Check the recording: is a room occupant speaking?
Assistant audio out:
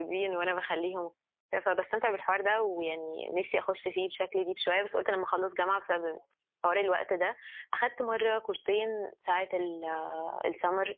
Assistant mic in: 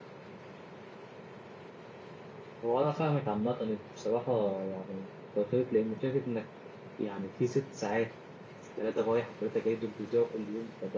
Yes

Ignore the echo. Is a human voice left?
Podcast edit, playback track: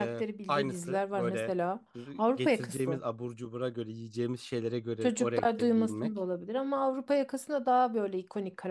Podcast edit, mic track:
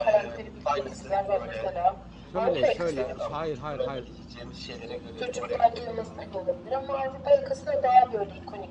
Yes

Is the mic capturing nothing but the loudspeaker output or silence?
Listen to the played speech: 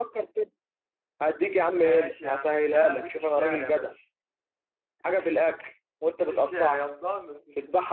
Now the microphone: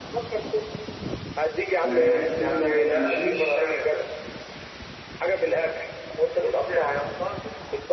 No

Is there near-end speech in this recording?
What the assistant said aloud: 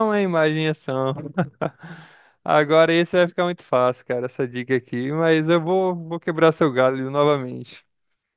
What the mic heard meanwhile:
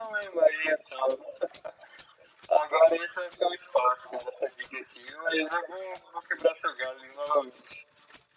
No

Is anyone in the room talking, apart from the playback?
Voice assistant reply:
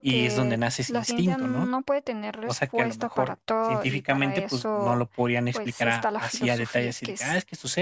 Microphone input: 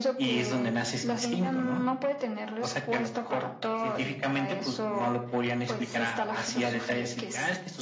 No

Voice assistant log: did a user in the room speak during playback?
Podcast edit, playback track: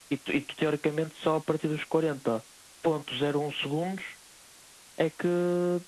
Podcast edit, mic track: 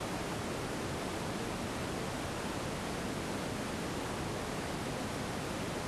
No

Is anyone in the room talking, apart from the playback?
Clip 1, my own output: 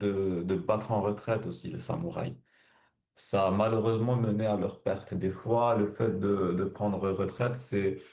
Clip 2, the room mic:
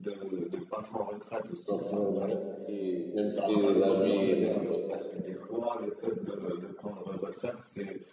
Yes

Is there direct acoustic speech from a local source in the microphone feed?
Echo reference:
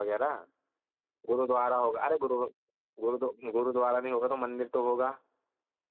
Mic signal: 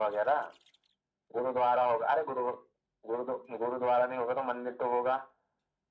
No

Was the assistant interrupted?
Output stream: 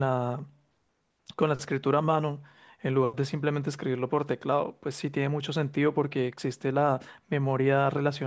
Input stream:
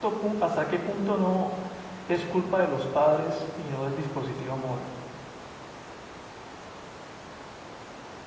Yes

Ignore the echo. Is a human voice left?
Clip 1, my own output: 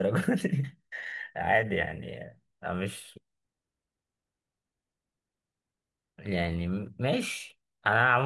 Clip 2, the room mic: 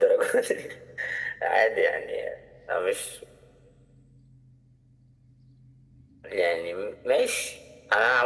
No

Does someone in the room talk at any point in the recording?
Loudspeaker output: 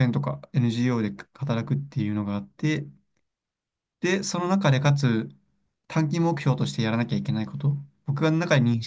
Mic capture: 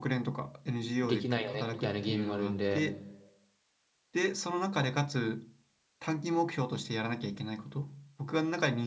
Yes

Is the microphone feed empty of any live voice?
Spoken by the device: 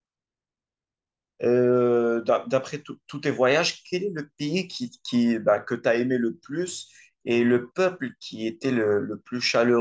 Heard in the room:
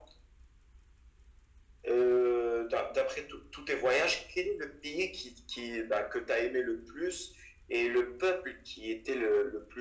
Yes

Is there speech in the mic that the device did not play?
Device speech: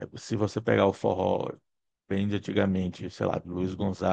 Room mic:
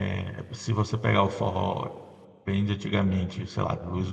No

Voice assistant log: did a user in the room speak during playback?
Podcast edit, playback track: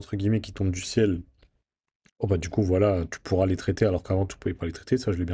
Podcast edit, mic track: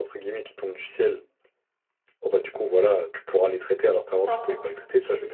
Yes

